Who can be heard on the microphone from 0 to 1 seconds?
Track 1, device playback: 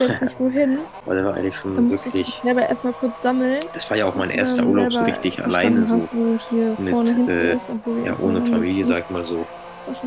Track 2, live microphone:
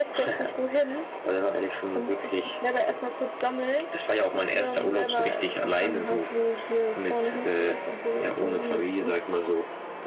echo only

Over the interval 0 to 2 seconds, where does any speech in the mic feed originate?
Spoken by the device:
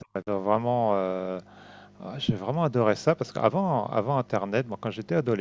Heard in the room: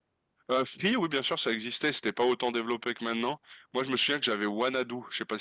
user only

